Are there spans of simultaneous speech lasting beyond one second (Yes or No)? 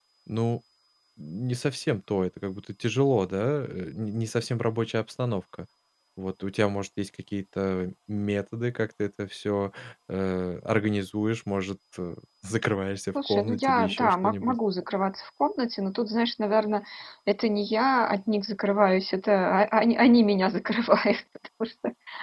Yes